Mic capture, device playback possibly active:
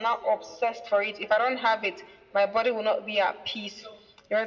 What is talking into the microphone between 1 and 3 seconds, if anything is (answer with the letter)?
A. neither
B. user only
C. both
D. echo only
D